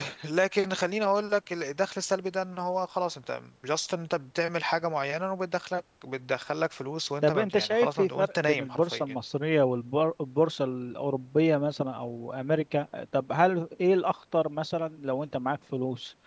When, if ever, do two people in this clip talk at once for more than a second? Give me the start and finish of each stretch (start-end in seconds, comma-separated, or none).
7.2-9.2